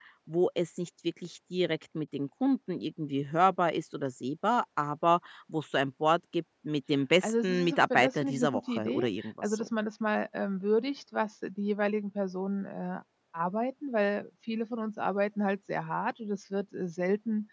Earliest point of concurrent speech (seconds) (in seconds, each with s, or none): 7.2 s